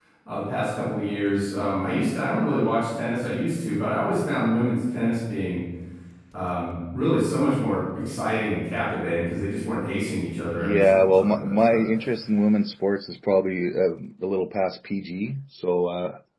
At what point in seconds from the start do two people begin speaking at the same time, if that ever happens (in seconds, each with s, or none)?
10.6 s